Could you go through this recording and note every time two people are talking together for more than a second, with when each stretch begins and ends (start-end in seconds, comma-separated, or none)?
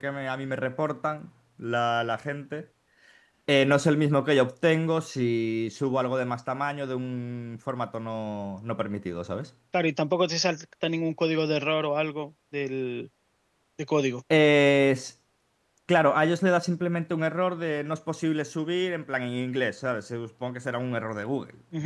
none